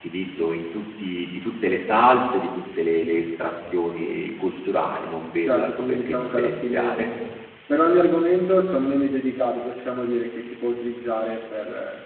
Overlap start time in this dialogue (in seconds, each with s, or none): 5.4 s